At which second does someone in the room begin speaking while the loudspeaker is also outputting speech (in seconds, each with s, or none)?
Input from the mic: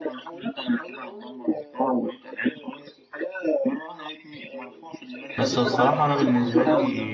5.4 s